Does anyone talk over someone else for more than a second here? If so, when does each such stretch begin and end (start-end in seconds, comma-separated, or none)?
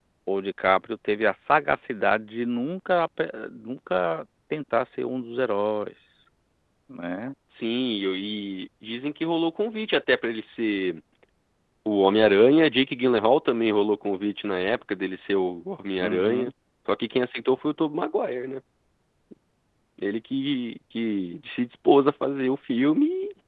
none